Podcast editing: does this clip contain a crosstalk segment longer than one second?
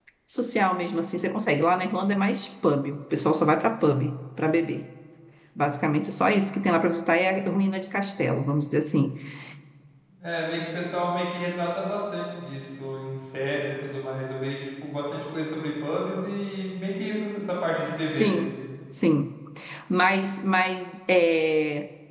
No

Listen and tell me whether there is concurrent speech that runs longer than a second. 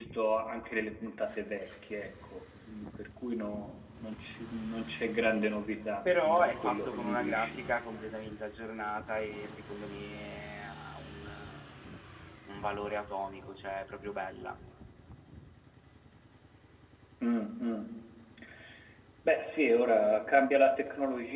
Yes, from 6.0 s

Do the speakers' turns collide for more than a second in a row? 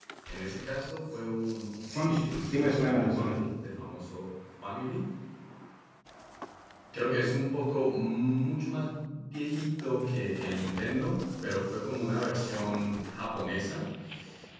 Yes, from 1.9 s

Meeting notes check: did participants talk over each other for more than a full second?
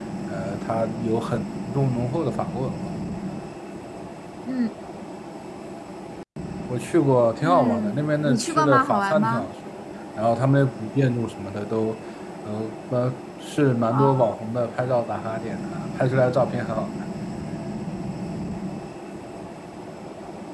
Yes, from 7.4 s

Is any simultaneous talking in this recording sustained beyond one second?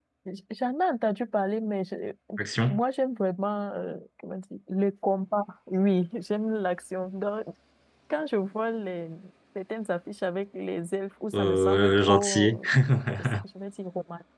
Yes, from 11.3 s

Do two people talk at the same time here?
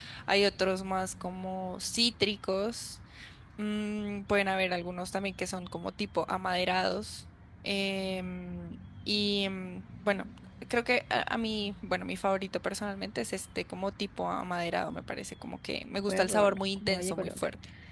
Yes, from 16.1 s

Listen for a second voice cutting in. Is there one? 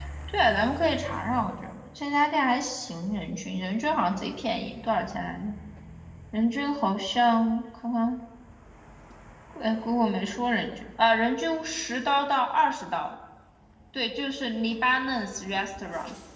No

